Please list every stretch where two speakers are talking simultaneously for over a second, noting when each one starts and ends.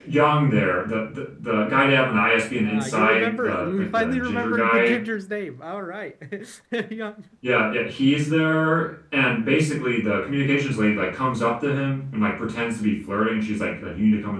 2.6-5.0

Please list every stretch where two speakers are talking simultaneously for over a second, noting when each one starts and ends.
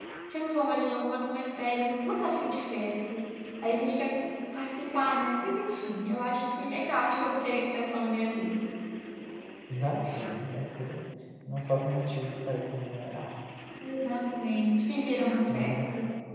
none

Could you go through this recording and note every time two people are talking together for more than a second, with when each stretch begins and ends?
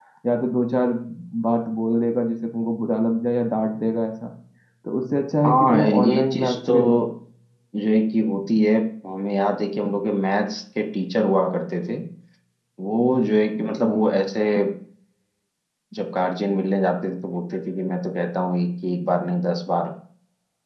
5.5-6.7

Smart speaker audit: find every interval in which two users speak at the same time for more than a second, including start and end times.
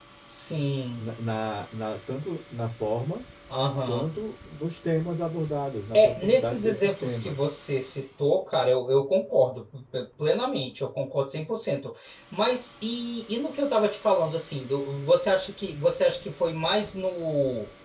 5.9-7.4

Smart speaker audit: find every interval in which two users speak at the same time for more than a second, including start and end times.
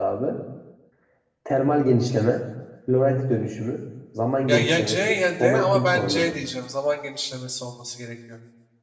4.5-6.3

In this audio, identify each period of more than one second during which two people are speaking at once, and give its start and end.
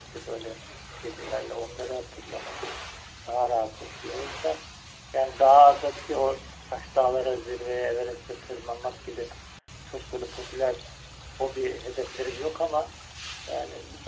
none

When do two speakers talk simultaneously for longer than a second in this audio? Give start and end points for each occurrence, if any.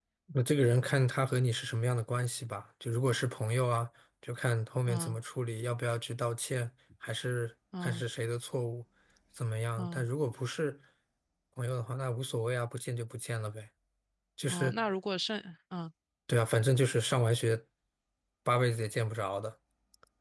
none

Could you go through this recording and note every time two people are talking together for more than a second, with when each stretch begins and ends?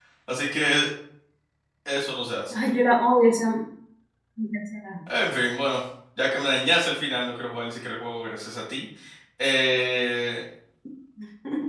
none

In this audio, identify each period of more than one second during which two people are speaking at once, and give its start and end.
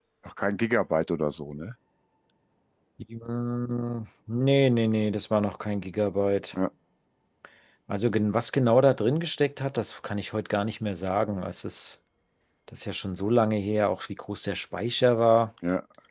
none

